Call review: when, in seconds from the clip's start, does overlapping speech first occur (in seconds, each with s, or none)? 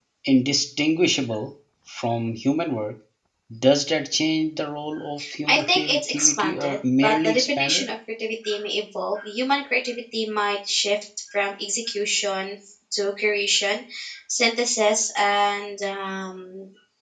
5.5 s